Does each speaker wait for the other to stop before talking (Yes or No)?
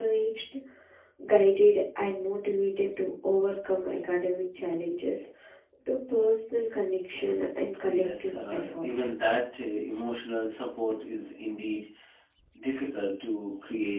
No